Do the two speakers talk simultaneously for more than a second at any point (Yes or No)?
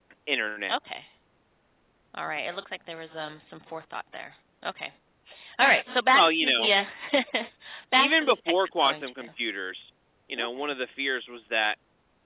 Yes